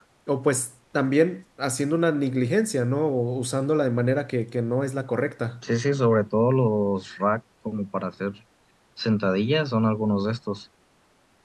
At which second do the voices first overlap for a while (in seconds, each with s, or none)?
none